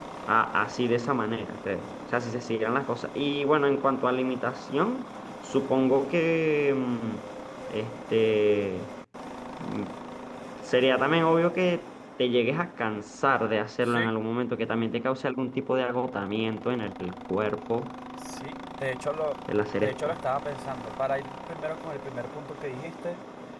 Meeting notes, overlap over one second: none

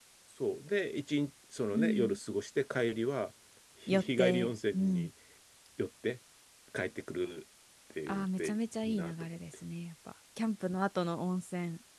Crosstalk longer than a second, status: present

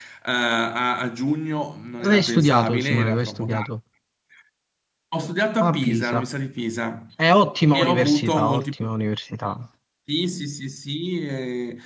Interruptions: present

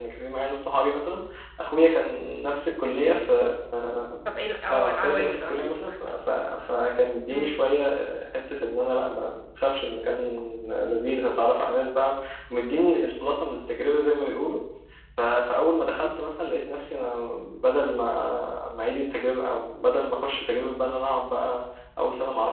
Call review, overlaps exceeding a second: present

